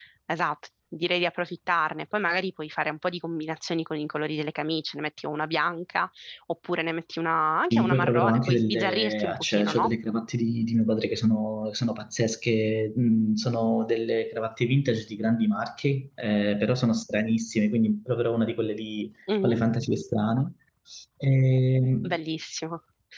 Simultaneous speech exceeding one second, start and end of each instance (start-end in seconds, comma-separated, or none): 7.7-9.9